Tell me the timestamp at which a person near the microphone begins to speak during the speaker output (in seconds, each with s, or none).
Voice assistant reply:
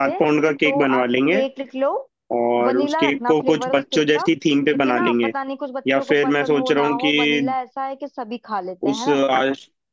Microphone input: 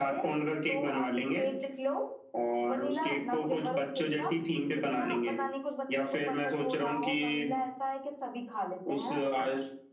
none